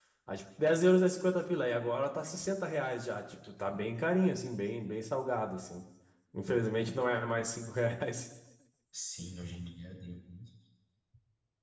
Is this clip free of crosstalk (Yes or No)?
Yes